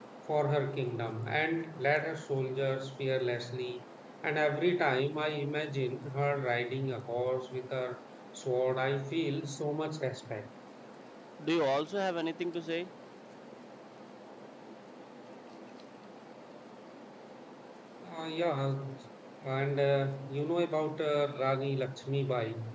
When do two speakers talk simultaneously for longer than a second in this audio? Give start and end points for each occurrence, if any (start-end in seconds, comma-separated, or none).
none